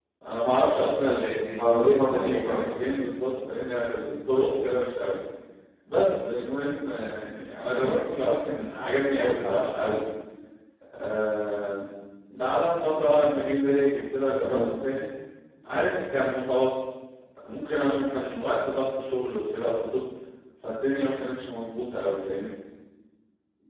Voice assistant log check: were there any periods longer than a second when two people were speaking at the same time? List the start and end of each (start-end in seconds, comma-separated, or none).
1.6-3.0